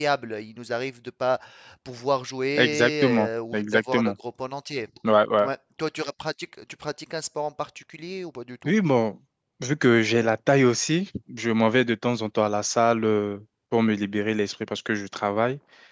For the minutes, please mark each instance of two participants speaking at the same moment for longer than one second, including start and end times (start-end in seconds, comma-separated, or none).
2.6-4.1